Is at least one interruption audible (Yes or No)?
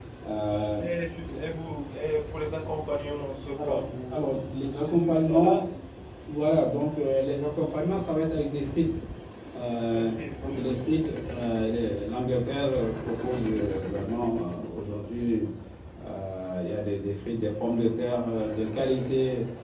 Yes